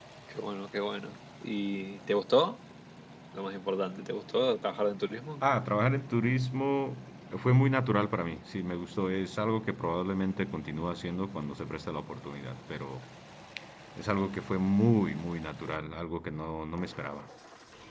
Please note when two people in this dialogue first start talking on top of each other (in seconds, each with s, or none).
none